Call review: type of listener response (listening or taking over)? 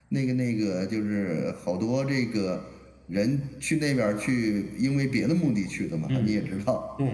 taking over